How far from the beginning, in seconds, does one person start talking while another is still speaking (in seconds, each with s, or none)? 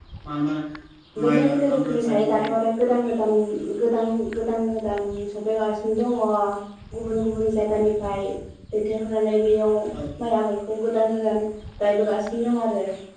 1.2 s